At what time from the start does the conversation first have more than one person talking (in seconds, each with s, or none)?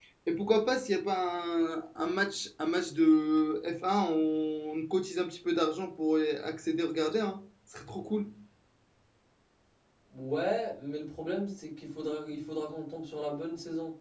none